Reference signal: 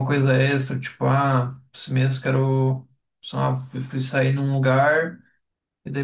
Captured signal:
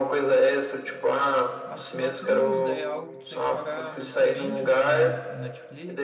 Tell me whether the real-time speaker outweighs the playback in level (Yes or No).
No